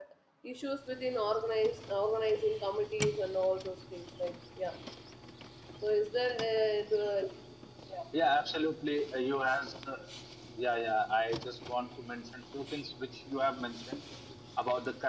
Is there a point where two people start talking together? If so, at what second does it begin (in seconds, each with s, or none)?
none